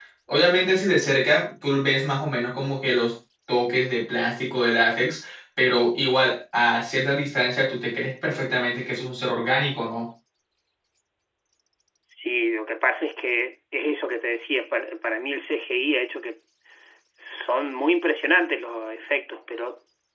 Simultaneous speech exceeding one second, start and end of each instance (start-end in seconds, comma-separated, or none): none